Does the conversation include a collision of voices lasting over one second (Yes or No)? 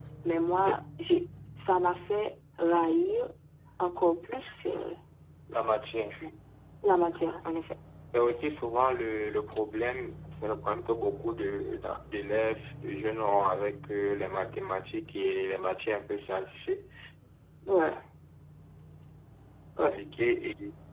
No